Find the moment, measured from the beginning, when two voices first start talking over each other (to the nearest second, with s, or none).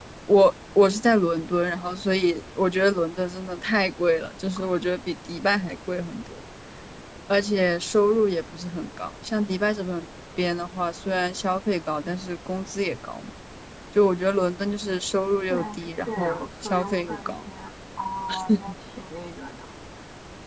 16 s